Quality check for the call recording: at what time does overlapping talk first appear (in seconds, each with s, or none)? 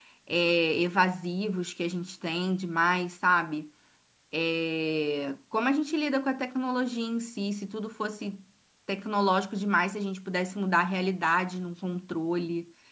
none